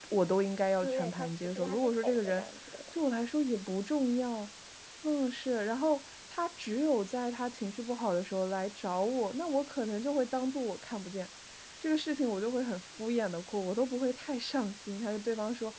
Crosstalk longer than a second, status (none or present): present